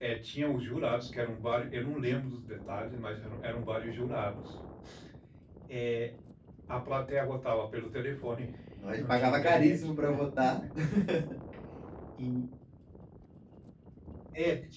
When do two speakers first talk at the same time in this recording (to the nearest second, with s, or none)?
9 s